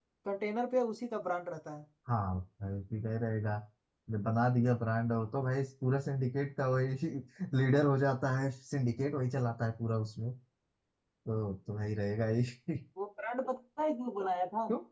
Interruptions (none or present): none